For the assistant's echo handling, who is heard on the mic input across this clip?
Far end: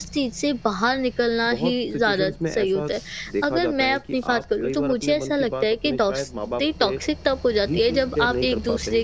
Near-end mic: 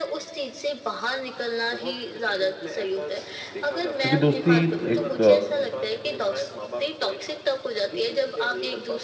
both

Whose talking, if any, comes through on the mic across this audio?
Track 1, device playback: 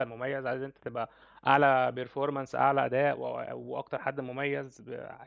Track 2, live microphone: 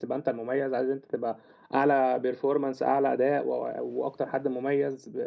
echo only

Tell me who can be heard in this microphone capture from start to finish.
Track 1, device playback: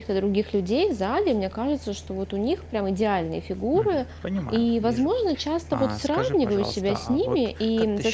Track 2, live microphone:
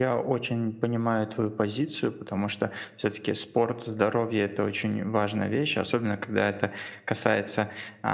user only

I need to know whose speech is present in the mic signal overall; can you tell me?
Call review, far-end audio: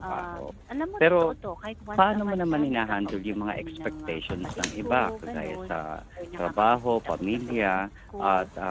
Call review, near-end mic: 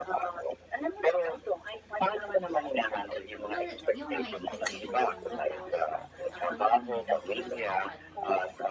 both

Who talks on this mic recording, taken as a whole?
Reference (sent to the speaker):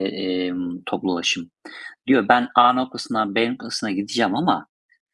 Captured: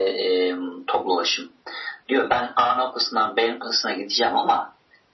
echo only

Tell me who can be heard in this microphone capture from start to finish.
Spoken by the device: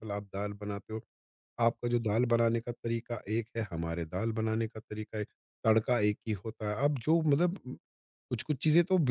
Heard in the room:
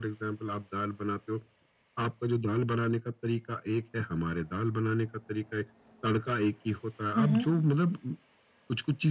both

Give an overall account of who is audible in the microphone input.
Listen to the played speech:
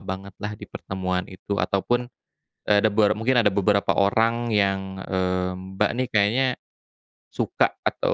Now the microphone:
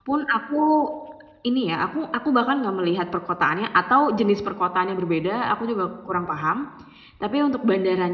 user only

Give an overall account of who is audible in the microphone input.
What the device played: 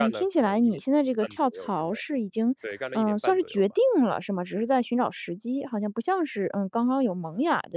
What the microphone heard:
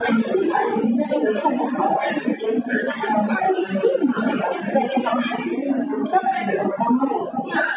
echo only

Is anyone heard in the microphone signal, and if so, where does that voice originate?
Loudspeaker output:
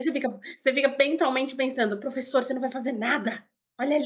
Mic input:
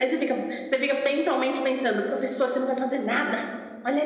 echo only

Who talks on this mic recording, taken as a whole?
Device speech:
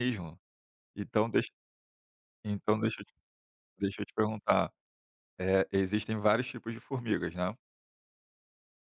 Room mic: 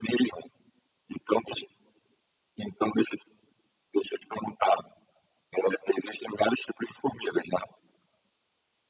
echo only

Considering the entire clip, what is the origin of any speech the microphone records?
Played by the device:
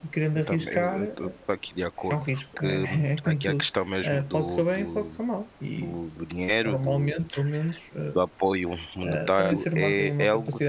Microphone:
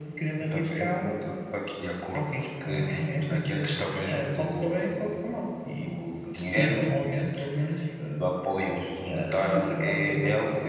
both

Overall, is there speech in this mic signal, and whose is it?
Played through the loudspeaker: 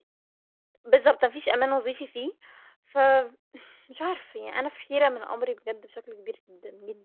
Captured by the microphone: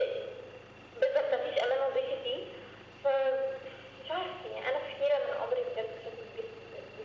echo only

